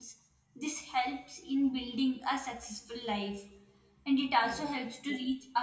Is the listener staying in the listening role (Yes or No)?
Yes